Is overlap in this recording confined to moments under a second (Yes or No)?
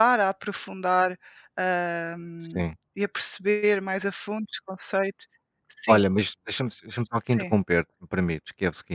Yes